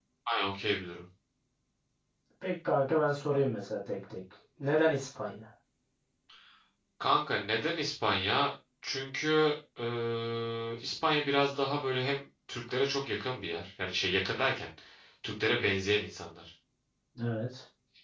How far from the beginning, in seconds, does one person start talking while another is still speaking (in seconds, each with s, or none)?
none